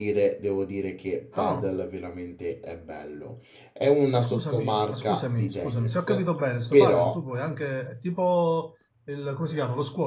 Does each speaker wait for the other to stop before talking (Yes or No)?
No